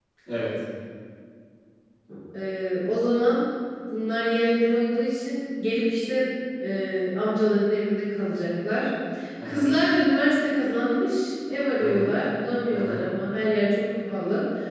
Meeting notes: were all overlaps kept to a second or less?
Yes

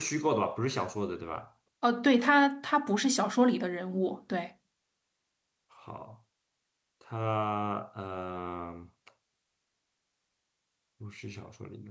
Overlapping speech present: No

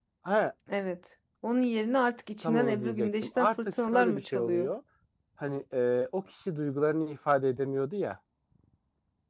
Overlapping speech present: Yes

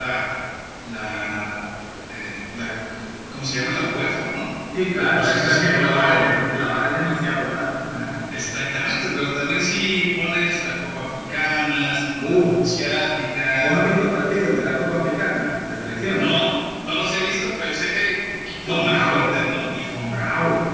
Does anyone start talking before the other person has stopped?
Yes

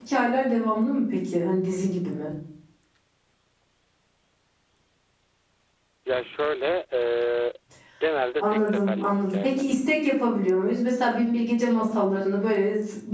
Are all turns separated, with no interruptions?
No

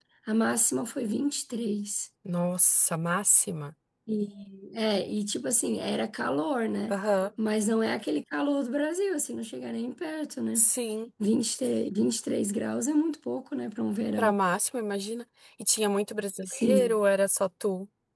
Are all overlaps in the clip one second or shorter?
Yes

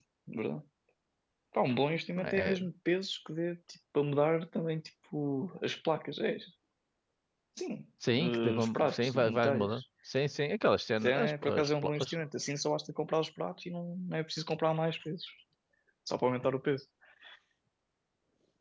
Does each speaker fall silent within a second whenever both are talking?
No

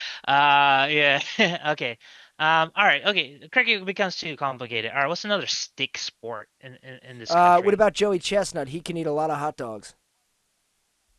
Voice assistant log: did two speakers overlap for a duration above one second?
No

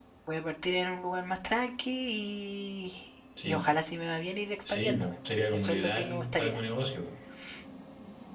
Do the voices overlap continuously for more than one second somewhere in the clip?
Yes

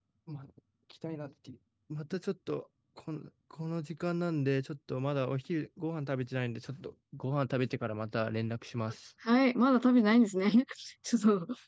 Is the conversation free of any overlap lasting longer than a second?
Yes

